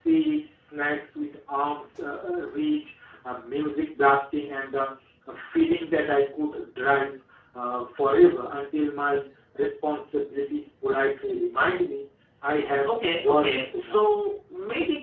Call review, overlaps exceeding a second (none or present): present